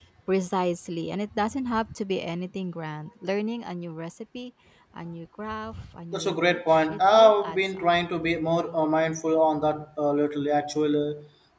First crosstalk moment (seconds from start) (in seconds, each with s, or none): 6.1 s